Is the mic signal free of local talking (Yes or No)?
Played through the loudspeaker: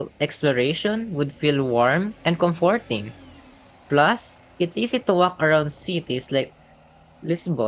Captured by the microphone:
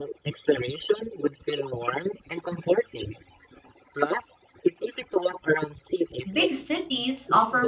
No